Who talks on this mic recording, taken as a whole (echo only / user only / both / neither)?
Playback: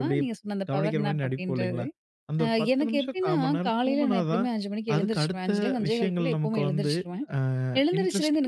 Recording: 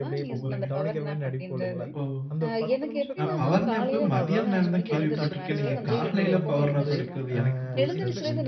both